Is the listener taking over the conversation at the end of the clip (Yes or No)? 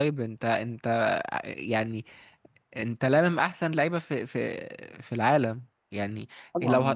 No